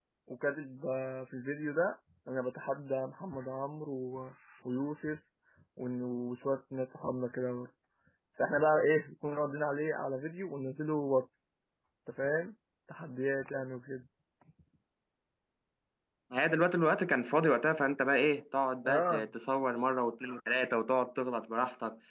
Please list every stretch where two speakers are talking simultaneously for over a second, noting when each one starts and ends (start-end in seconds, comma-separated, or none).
none